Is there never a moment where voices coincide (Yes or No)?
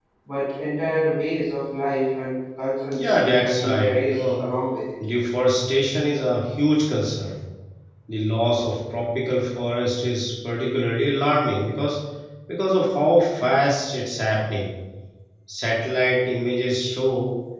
No